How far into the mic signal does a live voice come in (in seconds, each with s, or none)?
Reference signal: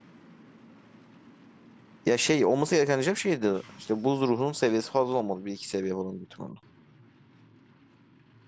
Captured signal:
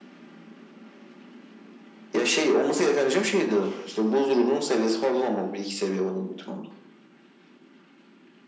none